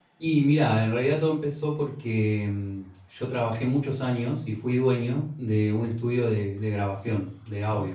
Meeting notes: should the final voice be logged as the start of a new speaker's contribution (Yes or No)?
No